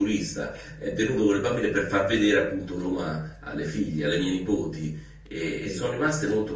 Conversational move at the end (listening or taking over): listening